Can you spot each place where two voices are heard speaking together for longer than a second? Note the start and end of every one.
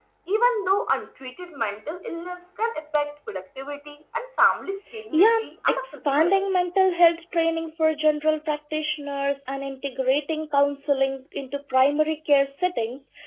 5.1-6.5

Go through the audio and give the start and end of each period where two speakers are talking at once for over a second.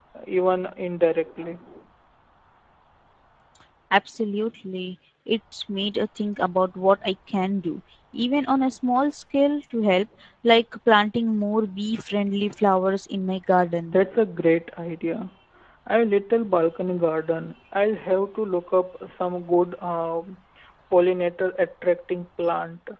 none

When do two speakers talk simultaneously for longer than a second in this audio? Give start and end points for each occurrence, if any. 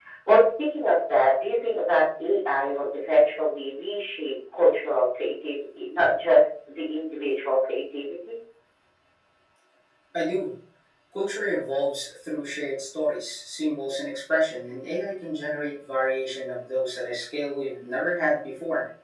none

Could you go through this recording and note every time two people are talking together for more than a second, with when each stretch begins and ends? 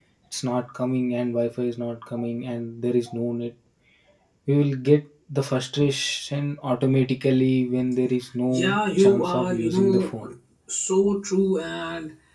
8.5-10.1

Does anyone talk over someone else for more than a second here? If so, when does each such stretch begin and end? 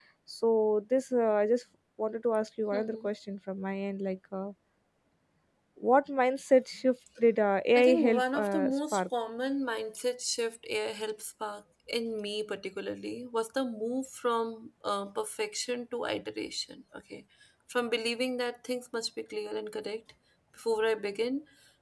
7.8-9.0

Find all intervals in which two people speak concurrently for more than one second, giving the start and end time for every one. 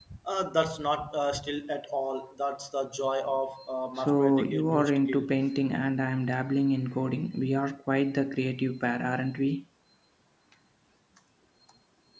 4.0-5.3

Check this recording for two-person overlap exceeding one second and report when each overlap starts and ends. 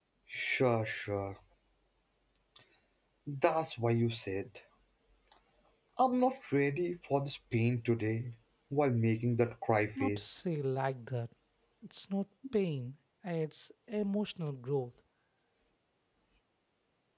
none

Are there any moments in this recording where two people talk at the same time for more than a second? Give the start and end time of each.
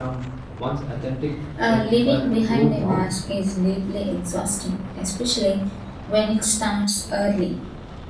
1.7-3.0

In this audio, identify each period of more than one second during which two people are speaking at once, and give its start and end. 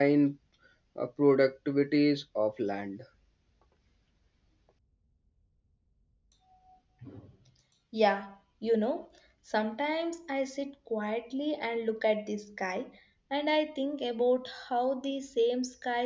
none

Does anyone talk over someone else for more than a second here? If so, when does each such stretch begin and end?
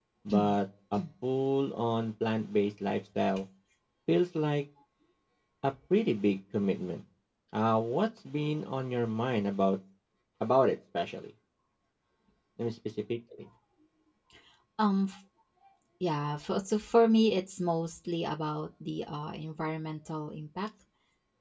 none

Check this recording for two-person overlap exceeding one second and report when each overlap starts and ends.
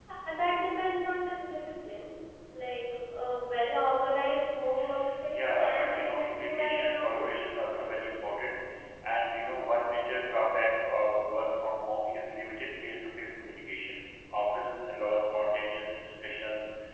5.3-7.4

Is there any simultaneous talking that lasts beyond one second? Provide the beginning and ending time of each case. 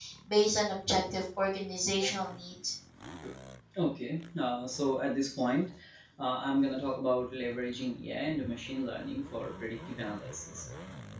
none

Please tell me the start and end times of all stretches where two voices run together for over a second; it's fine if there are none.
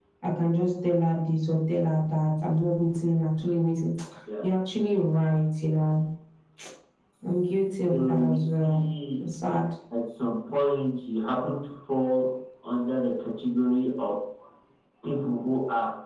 7.3-8.8

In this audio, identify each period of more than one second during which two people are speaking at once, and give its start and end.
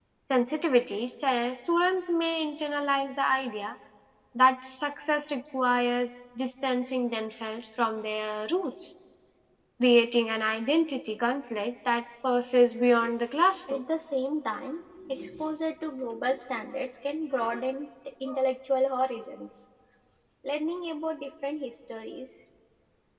none

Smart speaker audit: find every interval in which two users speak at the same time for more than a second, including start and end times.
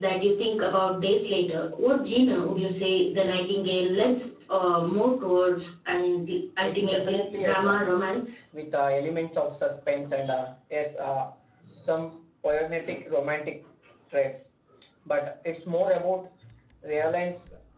6.6-7.9

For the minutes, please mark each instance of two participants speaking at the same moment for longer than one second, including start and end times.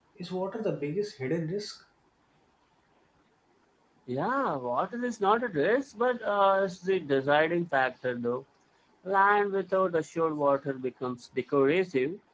none

